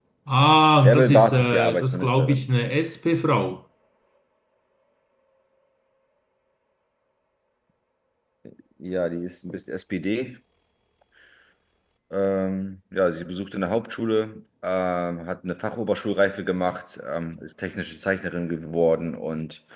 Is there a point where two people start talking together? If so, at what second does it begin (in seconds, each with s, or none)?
0.8 s